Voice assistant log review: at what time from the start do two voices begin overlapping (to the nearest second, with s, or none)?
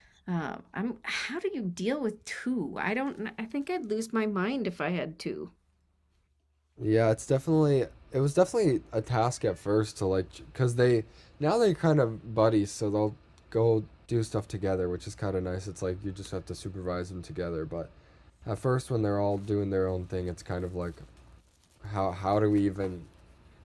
none